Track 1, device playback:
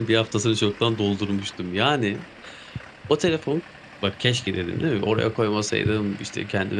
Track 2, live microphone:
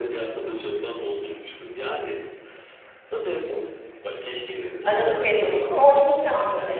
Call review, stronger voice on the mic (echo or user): user